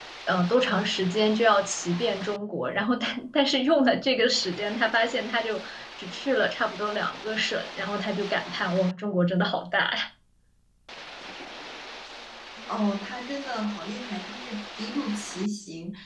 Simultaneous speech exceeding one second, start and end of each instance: none

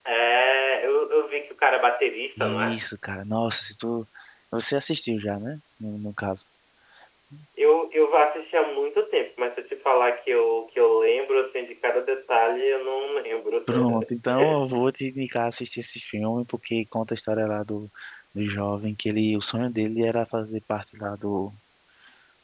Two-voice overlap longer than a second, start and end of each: none

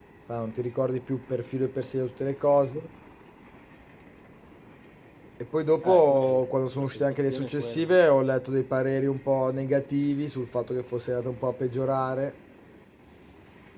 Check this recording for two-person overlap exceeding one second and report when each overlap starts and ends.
5.8-8.0

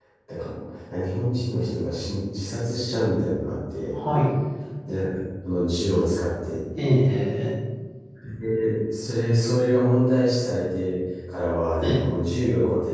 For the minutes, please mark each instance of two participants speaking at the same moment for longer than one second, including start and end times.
none

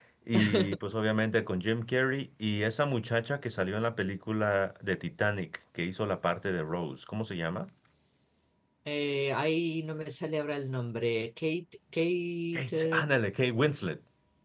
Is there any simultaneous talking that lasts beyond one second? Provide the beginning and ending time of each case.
none

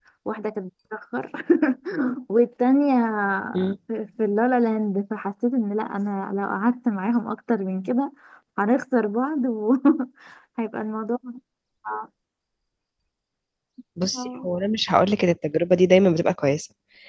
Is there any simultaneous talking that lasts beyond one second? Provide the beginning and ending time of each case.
none

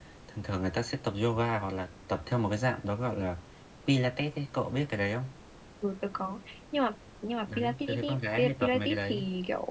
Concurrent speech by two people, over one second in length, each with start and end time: 7.6-9.2

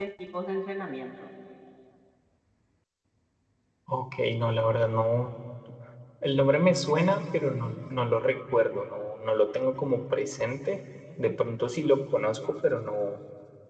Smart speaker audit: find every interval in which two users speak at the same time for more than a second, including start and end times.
none

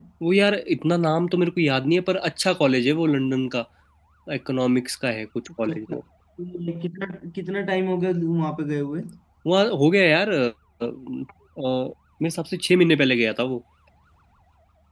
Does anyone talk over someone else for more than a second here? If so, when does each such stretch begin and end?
none

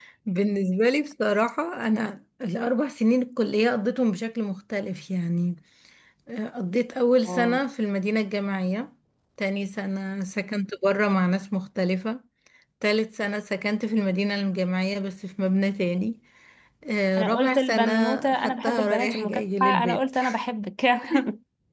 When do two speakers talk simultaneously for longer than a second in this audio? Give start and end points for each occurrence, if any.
17.2-20.2

